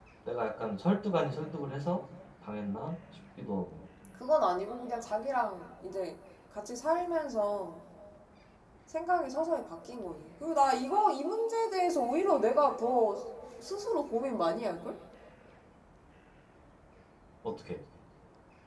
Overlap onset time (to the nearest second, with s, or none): none